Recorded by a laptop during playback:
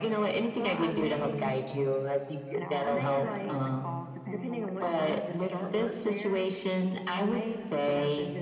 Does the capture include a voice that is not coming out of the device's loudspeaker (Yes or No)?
Yes